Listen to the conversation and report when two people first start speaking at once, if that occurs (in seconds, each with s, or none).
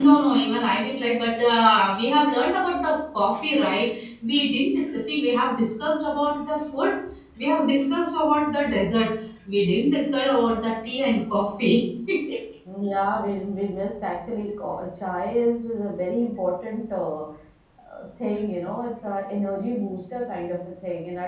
none